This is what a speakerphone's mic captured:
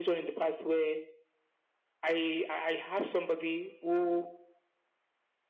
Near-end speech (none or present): none